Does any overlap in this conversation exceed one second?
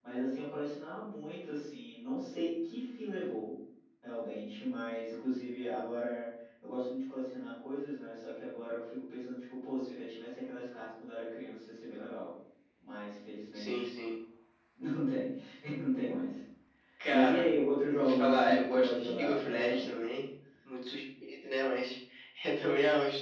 Yes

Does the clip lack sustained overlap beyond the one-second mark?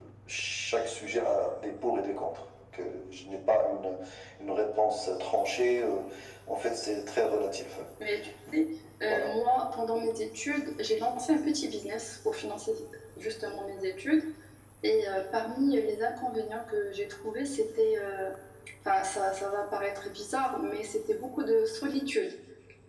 Yes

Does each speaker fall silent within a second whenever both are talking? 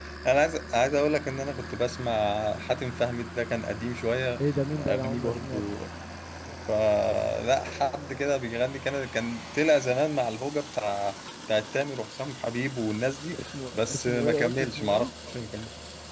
No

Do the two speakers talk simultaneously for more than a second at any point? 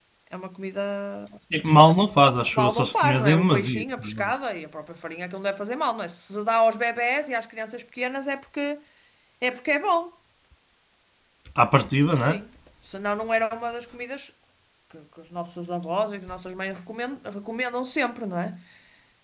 Yes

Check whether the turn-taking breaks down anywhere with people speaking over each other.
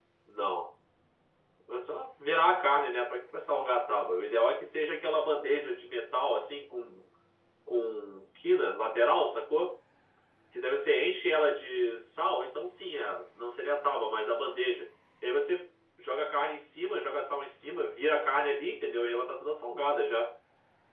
No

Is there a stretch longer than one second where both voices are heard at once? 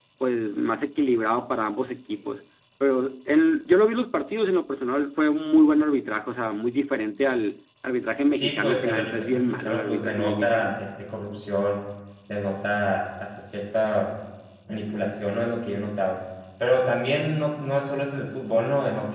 Yes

